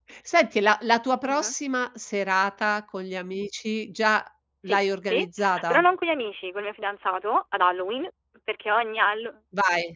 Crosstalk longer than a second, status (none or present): none